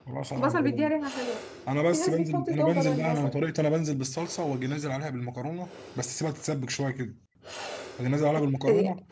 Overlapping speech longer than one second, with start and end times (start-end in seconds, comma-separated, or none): 1.9-3.4